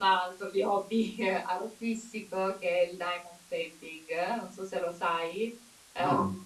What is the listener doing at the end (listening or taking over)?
listening